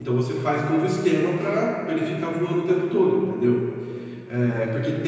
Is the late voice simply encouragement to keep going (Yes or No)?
Yes